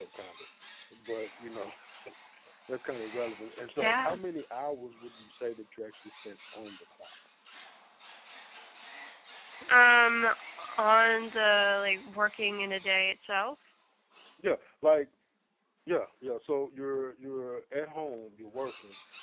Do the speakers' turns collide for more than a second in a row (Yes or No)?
No